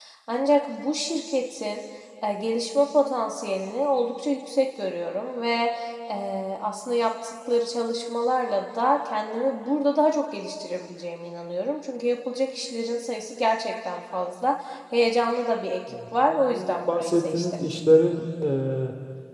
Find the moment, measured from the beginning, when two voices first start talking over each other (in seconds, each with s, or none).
15.9 s